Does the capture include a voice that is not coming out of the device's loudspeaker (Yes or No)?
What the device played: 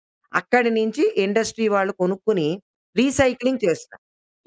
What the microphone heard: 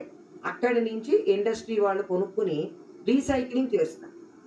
No